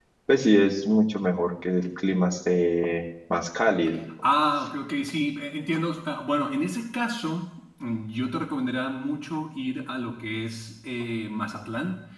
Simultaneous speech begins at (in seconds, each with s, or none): none